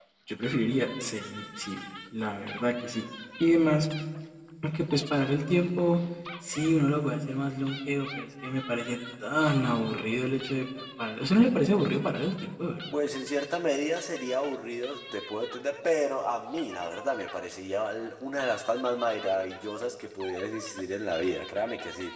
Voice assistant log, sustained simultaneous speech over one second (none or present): none